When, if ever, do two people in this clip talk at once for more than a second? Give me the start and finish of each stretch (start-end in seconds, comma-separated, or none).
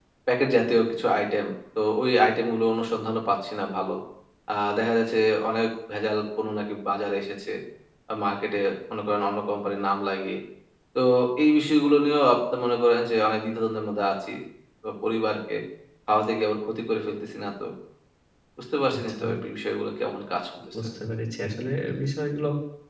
none